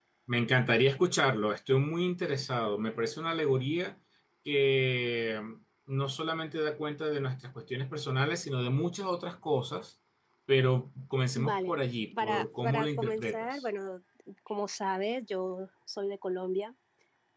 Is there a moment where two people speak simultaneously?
Yes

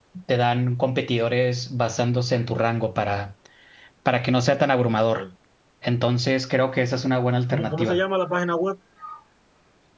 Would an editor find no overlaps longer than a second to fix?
Yes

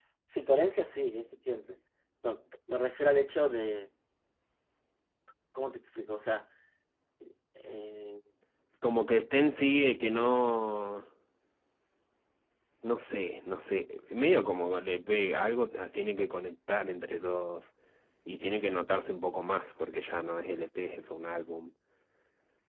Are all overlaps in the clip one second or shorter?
Yes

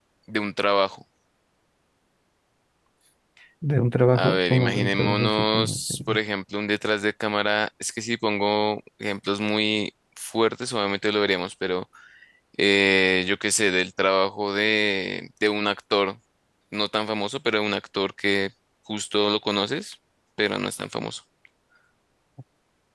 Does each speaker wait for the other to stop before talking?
No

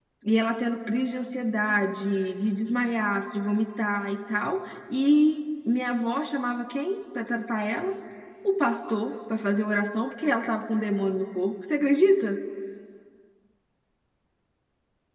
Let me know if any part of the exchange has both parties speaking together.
No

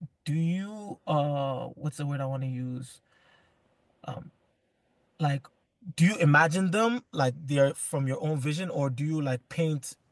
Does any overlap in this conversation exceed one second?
No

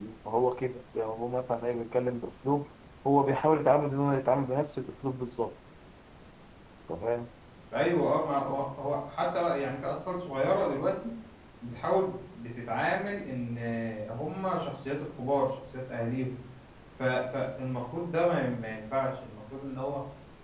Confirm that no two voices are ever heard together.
Yes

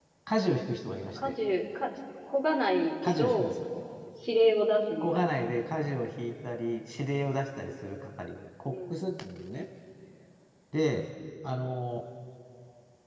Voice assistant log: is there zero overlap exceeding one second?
Yes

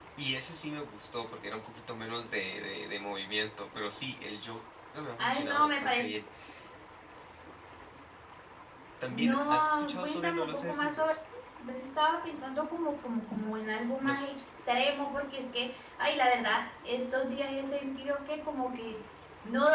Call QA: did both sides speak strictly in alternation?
No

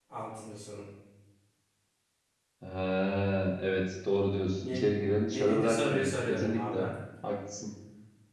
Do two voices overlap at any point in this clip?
Yes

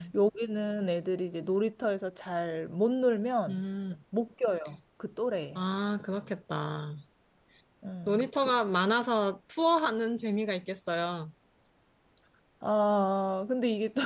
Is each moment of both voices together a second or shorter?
Yes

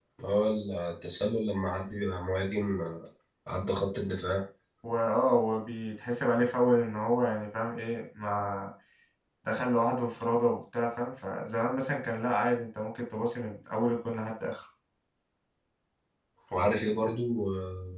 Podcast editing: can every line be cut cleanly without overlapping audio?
Yes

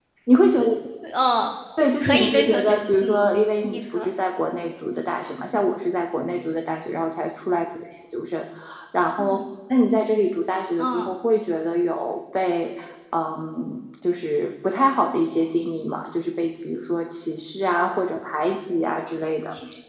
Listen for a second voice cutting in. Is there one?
Yes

